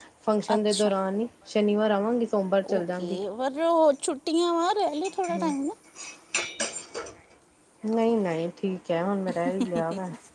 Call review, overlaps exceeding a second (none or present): none